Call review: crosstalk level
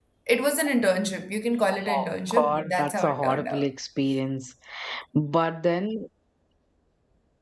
present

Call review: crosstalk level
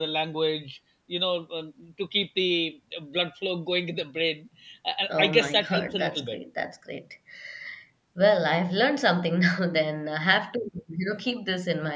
present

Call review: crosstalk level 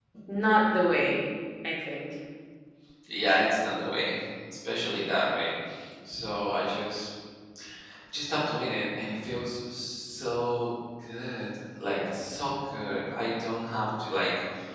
none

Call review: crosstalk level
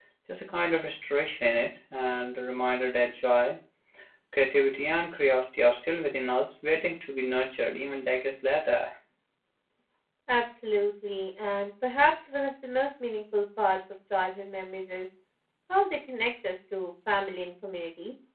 none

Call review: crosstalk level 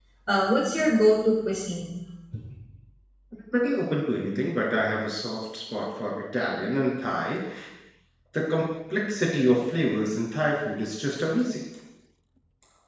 none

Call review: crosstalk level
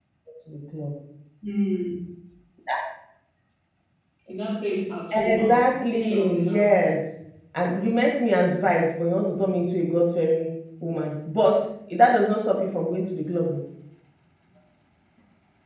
present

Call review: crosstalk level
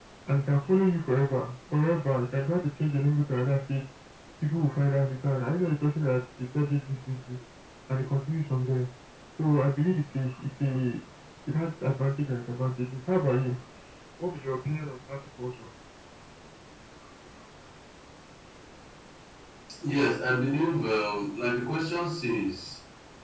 none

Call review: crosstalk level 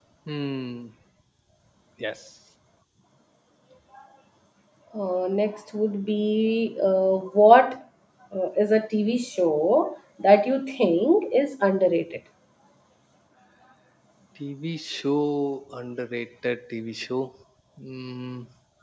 none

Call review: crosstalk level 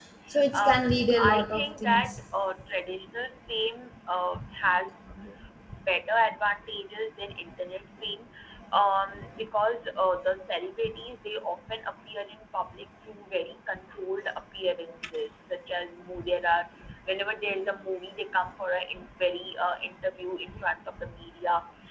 present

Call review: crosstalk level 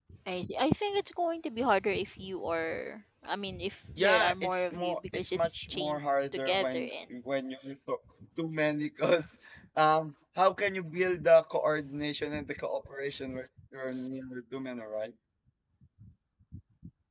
present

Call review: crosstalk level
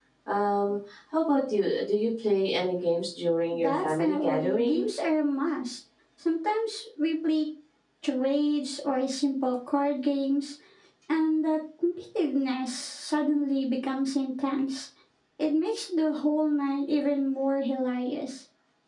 present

